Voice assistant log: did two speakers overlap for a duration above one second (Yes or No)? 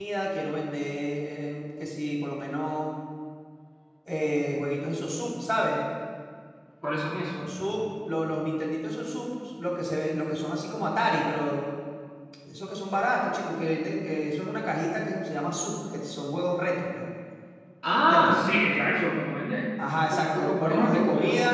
Yes